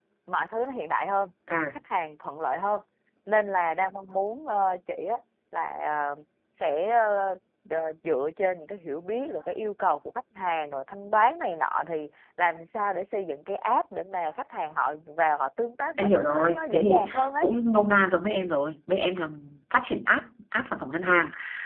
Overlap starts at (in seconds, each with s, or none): 16.0 s